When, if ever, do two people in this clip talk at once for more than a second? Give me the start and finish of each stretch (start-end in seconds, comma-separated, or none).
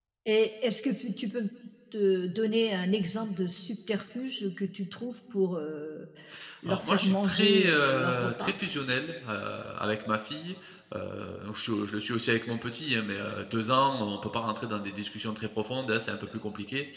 6.7-8.5